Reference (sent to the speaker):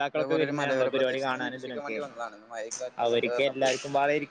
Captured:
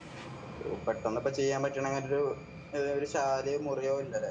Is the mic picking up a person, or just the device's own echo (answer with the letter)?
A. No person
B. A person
B